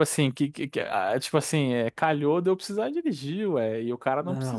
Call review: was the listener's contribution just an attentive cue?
No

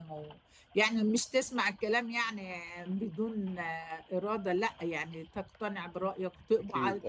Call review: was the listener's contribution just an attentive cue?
Yes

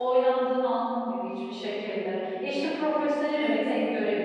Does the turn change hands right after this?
No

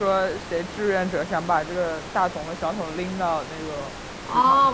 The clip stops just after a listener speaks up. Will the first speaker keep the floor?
No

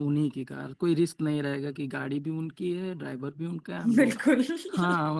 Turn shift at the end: No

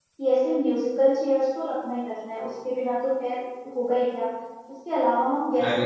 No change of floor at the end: Yes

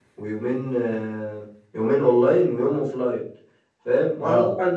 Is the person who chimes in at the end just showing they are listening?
Yes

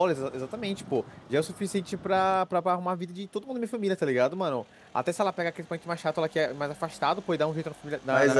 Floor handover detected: No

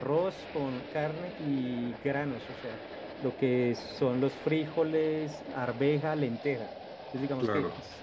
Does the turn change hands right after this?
No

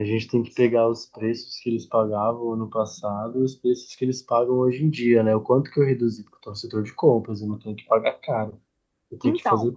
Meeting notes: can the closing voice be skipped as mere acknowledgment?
Yes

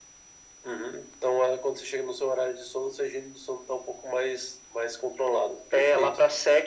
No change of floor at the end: No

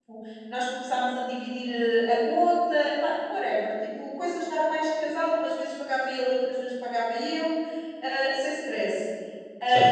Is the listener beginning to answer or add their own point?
No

